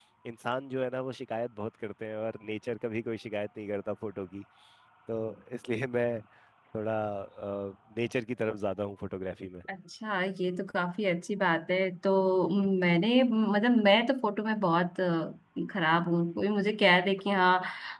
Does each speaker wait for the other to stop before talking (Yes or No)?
Yes